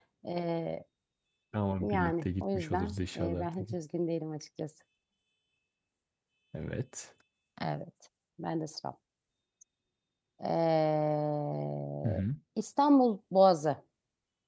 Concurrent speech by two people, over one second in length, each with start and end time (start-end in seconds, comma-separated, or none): 1.8-3.8